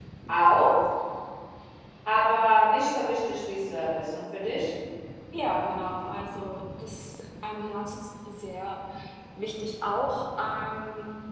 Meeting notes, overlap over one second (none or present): none